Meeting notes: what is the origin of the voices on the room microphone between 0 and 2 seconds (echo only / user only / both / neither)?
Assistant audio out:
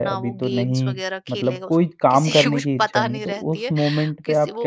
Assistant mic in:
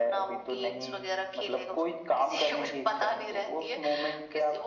echo only